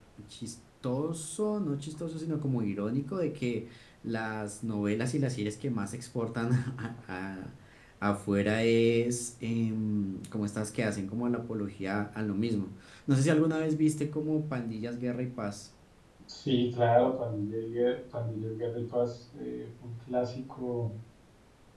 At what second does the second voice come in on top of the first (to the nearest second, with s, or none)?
none